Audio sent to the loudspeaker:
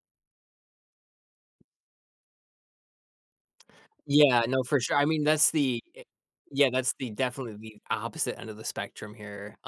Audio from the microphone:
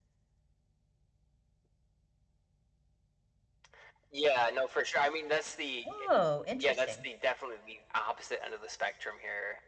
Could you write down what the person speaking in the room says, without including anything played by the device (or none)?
Oh, interesting.